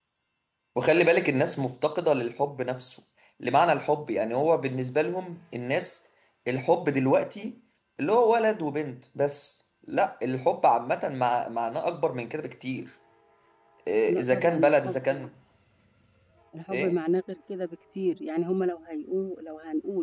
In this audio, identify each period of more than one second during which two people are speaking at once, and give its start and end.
14.1-15.3

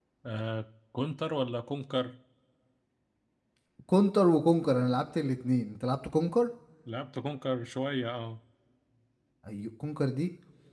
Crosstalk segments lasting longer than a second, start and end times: none

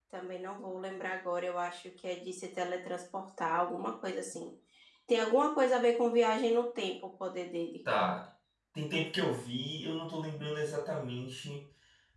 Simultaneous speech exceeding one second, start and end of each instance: none

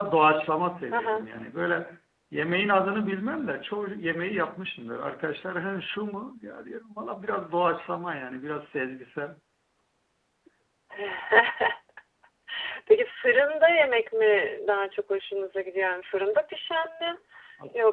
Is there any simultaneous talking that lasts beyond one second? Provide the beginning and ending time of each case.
none

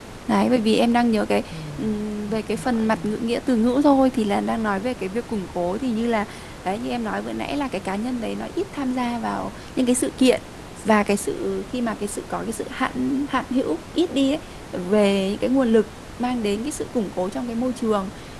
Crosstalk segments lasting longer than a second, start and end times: 1.5-3.0

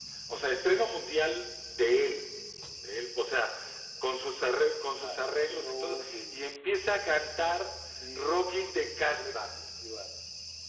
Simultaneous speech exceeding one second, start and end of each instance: 5.0-6.5

